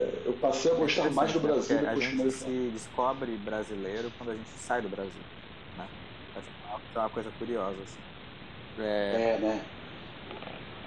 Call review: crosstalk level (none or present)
present